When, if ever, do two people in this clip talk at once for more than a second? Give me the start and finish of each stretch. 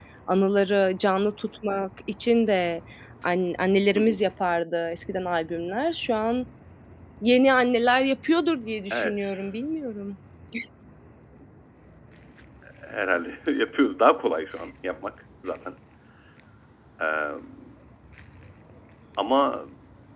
none

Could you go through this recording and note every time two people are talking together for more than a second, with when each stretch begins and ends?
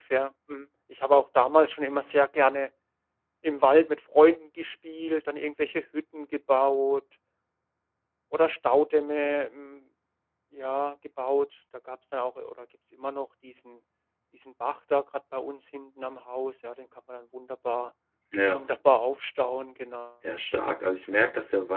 none

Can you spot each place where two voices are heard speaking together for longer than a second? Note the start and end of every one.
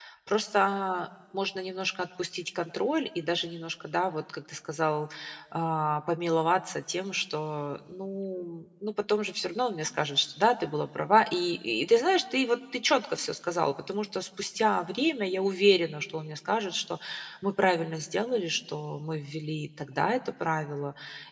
none

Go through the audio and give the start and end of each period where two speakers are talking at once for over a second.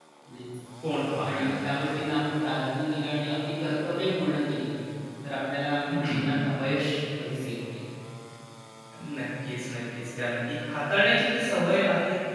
none

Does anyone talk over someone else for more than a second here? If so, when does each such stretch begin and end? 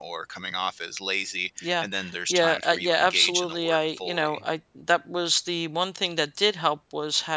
2.3-4.4

